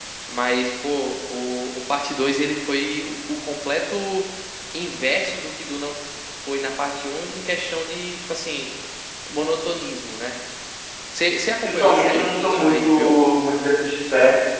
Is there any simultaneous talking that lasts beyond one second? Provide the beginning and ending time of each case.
11.6-13.2

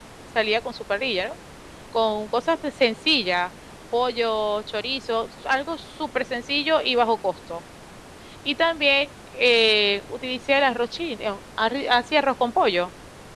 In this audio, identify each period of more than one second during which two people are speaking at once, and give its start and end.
none

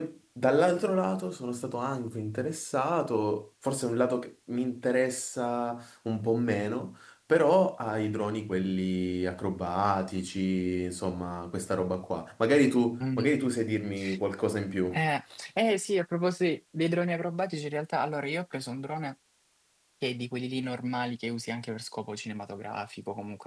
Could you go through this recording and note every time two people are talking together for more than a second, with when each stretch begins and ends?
none

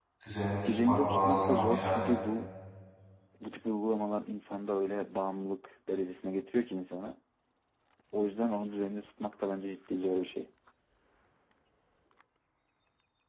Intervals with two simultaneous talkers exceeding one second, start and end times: 0.7-2.1

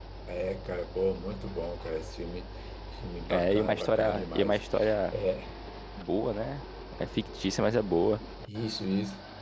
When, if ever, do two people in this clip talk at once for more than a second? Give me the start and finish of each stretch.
3.3-4.6

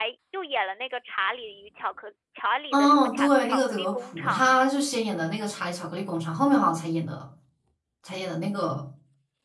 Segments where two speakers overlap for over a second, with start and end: 2.7-4.7

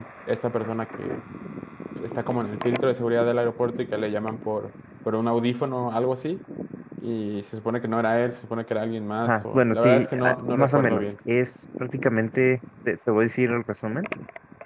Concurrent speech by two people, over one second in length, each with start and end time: 9.3-11.1

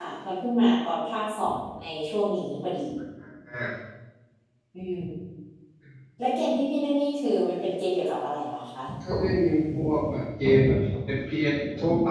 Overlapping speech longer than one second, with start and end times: none

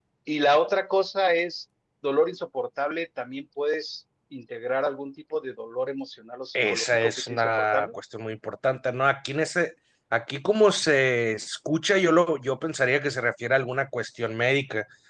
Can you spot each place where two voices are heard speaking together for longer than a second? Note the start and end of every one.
6.5-7.9

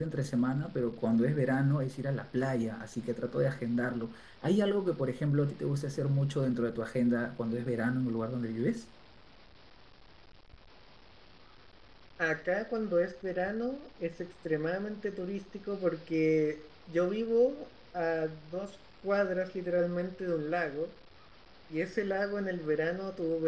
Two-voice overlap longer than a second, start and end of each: none

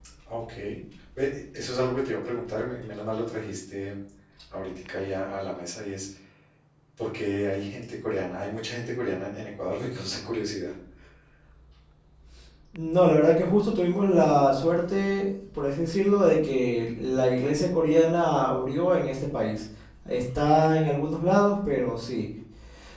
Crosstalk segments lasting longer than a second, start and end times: none

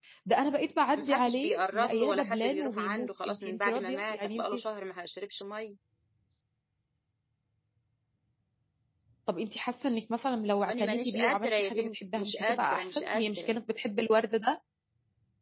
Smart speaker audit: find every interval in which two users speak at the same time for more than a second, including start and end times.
1.0-4.4, 10.7-13.6

